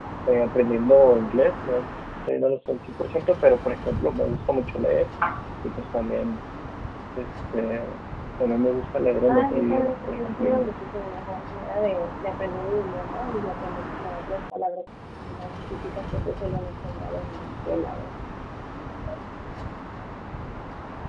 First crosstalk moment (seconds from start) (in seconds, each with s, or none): 9.3 s